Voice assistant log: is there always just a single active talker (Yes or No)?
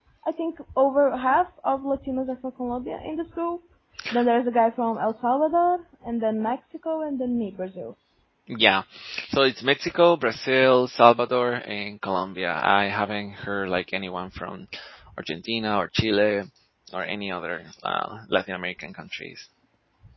Yes